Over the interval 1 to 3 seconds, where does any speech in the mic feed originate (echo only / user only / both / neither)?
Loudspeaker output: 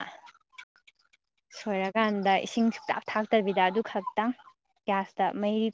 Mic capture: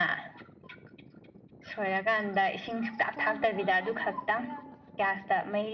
echo only